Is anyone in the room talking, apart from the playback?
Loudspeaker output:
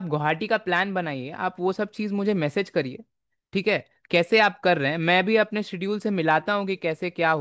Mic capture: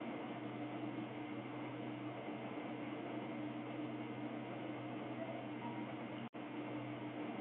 No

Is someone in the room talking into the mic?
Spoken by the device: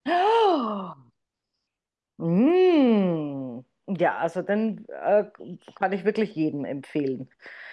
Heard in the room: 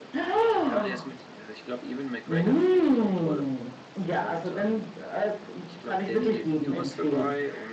Yes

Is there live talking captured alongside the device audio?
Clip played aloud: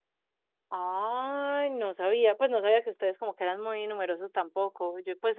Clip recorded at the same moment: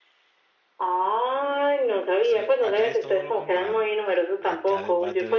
Yes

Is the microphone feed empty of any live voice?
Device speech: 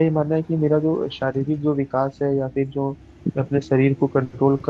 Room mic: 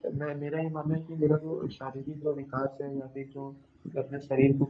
Yes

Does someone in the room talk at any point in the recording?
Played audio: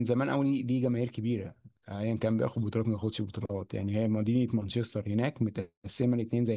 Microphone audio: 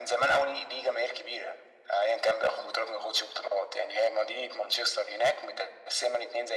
No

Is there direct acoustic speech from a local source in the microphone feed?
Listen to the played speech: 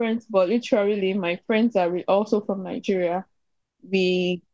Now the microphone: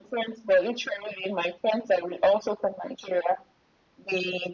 No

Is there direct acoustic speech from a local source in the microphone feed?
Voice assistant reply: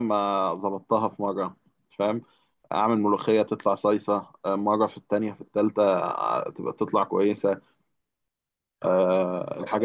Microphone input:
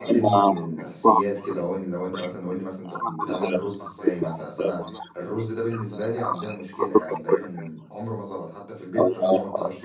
Yes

